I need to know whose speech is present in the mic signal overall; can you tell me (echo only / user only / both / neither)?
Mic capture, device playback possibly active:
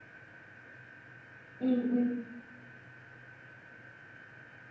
user only